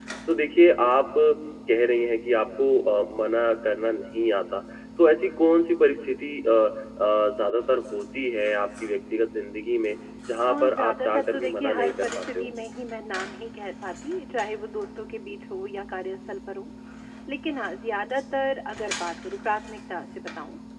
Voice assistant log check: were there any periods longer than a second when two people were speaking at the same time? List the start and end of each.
10.5-12.5

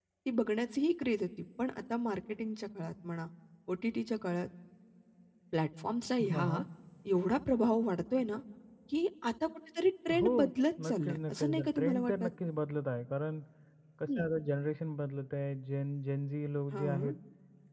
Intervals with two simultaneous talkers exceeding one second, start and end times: 10.8-12.3

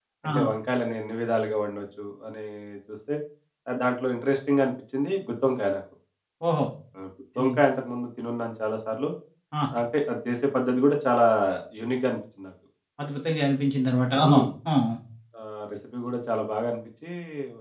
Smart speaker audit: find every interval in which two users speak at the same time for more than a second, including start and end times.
none

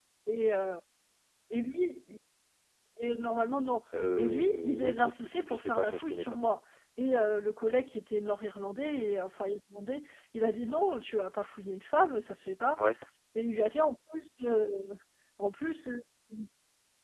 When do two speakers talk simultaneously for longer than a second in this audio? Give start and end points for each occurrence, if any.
4.2-6.4

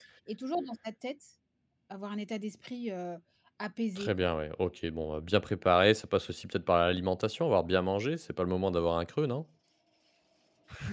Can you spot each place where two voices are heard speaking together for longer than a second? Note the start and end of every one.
none

